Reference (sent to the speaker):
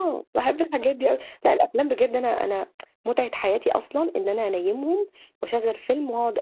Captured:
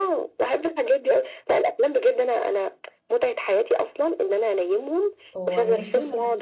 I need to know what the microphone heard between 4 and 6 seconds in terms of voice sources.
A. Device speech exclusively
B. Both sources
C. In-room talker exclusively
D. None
B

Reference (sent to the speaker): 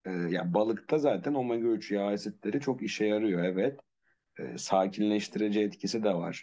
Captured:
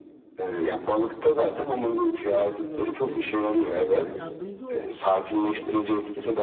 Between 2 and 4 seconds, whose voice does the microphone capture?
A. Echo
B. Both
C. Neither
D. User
B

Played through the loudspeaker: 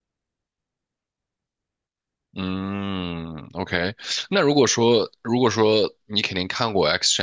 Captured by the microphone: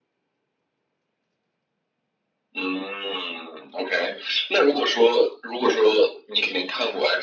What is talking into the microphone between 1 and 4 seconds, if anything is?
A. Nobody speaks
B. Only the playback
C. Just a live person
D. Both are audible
B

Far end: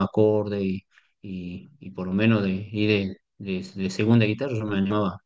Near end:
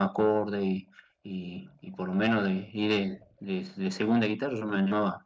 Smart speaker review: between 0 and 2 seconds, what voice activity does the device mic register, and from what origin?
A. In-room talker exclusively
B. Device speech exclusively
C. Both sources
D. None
B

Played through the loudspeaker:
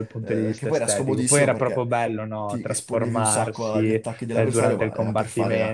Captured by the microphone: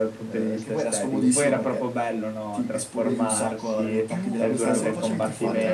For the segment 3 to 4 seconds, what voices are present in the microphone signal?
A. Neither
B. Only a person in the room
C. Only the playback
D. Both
D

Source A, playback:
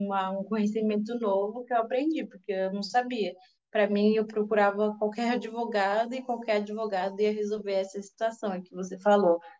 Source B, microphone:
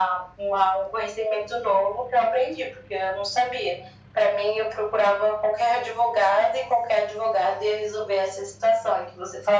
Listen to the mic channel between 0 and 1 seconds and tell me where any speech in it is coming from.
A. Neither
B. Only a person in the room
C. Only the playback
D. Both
C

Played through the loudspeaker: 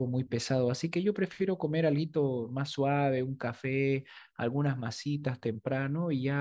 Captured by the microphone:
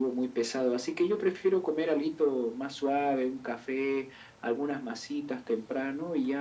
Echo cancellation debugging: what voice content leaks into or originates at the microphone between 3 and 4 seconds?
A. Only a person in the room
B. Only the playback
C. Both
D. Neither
B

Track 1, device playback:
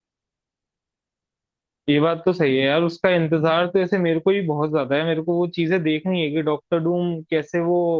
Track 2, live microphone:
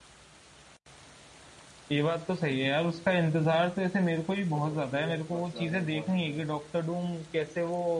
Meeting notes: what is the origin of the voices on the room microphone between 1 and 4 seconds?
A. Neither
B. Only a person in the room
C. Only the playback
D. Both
C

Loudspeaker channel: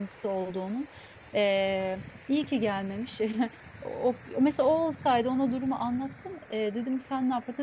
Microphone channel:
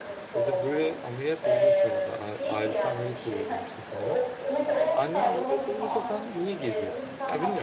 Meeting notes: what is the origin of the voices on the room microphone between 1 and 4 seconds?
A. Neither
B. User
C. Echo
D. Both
D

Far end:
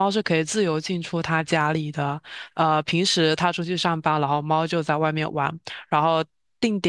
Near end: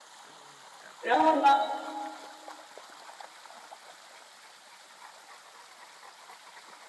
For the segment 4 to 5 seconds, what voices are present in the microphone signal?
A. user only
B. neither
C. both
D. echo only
B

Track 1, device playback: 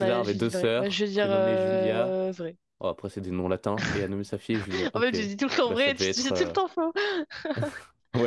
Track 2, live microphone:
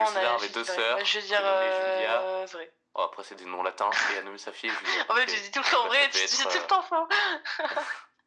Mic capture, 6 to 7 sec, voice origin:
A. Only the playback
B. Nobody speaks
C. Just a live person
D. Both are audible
A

